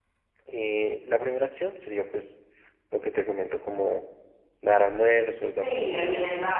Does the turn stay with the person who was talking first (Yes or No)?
No